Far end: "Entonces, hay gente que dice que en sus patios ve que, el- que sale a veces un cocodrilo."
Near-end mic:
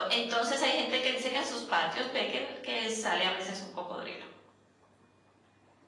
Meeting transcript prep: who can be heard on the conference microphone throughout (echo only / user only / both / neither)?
echo only